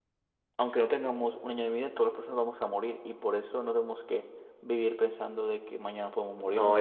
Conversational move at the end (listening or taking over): taking over